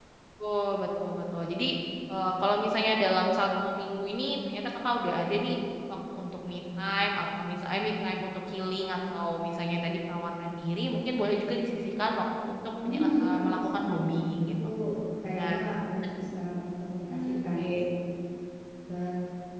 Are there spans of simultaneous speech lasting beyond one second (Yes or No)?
Yes